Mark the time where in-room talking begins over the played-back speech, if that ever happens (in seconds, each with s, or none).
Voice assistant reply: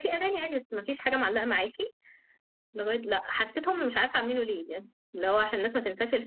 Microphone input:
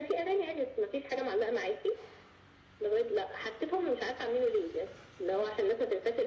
none